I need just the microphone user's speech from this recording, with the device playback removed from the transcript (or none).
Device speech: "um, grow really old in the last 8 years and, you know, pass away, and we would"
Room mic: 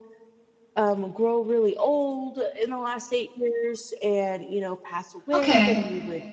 Okay.